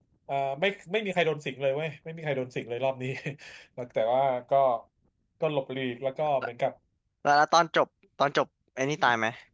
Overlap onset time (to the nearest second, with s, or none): none